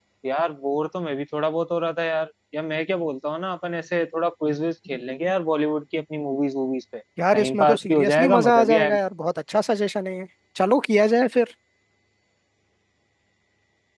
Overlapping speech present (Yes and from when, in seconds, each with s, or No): Yes, from 7.2 s